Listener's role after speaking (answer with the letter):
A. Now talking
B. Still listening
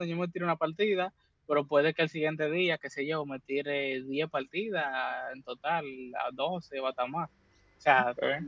B